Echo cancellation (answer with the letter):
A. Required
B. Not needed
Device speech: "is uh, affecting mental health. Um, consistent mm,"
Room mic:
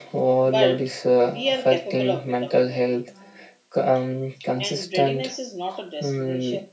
A